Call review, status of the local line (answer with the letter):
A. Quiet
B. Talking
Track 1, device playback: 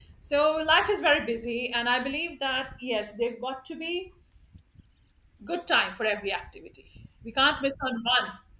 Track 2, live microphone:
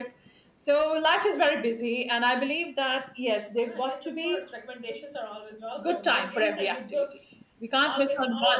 B